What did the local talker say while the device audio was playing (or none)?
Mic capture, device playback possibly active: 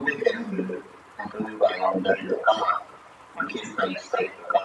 はい。